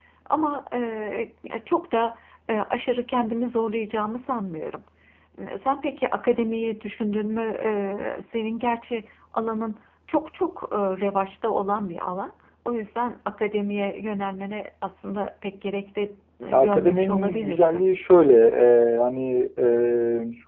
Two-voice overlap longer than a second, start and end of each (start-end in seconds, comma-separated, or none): 16.5-17.8